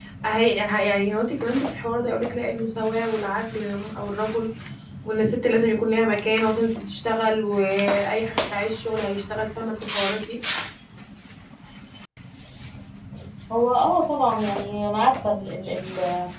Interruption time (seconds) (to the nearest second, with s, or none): none